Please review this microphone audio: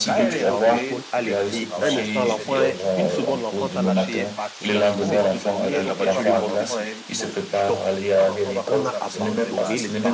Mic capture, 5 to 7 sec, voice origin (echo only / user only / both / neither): both